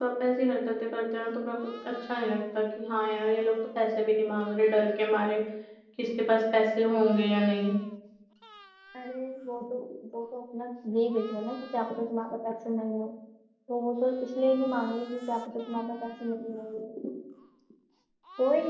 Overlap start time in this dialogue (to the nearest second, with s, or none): none